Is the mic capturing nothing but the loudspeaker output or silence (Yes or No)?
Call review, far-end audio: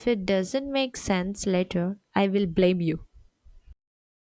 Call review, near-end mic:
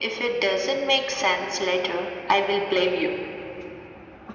Yes